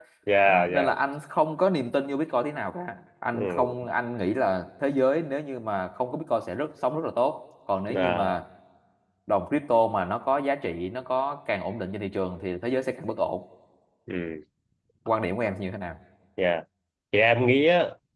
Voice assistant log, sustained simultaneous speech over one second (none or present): none